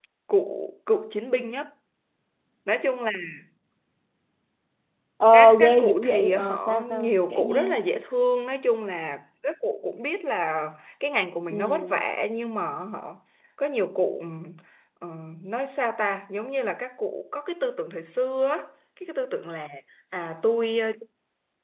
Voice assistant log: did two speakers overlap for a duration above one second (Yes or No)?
Yes